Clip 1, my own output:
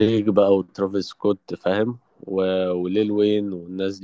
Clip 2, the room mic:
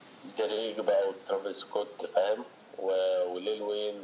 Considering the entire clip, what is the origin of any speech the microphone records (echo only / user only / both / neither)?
echo only